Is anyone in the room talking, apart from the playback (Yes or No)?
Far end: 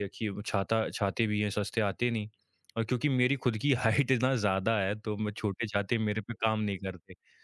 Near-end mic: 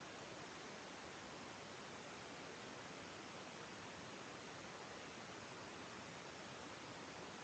No